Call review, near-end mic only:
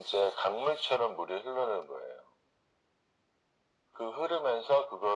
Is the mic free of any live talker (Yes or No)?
Yes